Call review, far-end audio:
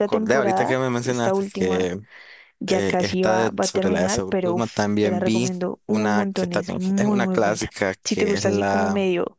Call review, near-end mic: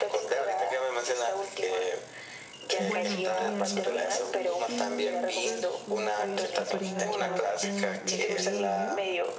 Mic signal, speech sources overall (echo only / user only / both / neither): both